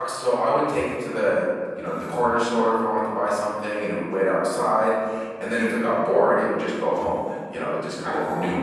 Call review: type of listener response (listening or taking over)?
listening